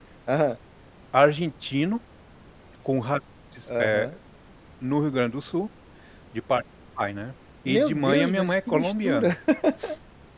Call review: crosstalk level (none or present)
present